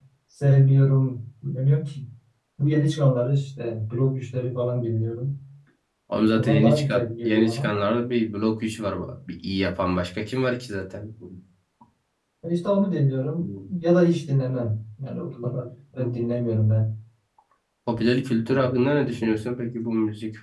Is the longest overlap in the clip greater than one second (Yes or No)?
Yes